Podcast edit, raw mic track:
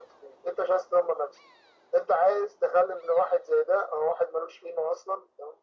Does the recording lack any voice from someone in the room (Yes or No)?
Yes